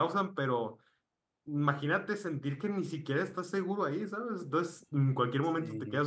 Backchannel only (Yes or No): Yes